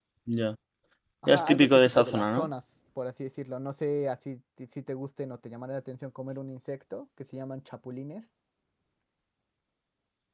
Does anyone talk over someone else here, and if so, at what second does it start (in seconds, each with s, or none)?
1.3 s